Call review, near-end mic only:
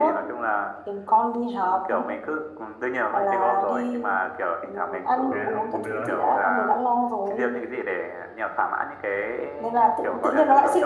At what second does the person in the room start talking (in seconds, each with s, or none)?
5.3 s